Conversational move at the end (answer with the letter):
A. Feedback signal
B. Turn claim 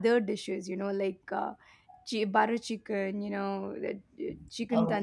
A